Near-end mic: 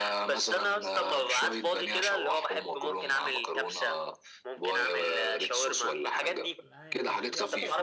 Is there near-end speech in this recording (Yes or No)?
Yes